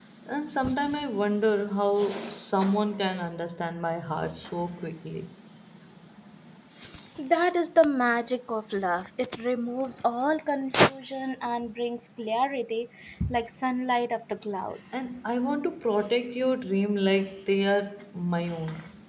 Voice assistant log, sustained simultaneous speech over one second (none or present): none